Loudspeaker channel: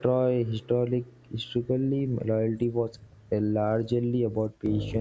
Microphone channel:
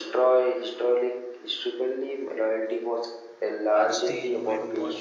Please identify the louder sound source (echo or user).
echo